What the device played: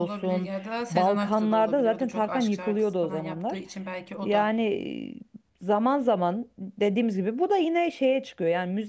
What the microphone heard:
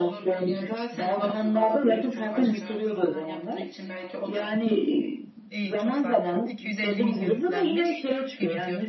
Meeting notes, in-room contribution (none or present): present